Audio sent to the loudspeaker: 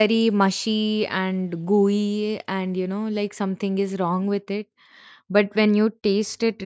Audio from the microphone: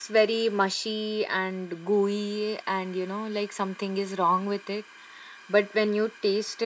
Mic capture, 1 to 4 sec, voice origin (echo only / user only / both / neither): echo only